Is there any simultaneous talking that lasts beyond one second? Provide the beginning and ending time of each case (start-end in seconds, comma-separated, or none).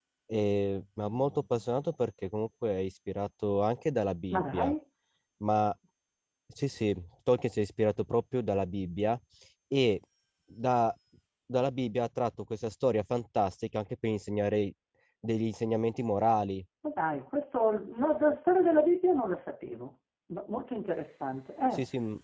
none